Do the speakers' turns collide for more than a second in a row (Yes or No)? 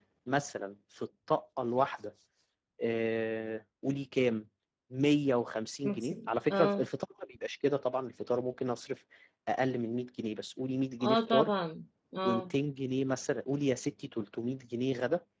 No